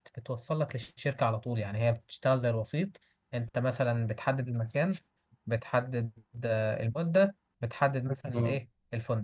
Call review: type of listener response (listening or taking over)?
listening